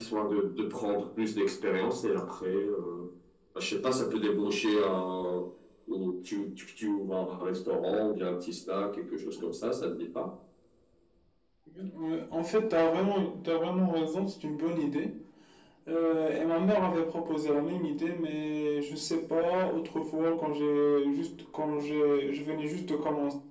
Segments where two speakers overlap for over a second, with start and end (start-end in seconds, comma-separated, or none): none